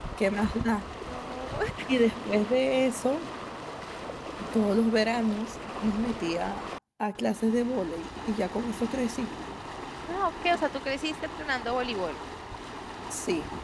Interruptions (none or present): none